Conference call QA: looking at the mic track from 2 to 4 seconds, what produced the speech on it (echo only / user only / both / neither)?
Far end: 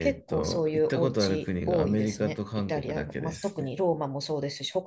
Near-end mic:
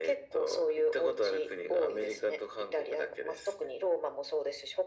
echo only